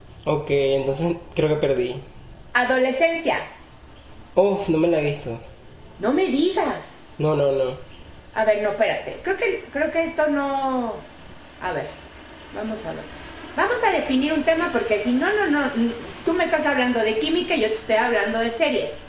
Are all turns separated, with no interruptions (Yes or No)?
Yes